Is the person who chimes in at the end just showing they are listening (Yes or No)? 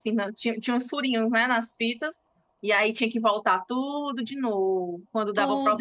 No